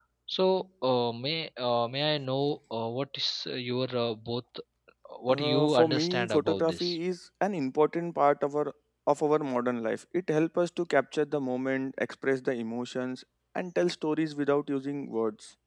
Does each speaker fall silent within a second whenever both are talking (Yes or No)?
No